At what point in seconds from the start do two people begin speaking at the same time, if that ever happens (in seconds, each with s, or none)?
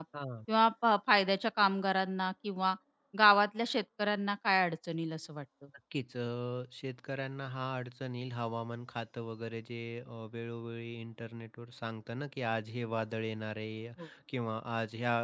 none